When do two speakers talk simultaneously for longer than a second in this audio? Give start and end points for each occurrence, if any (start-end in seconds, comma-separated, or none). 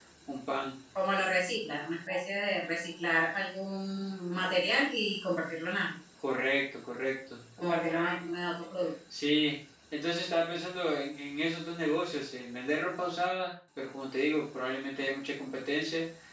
none